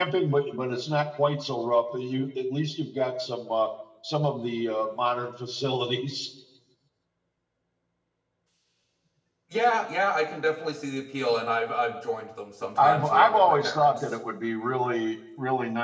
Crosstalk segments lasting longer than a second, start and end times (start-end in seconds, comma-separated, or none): 12.8-14.0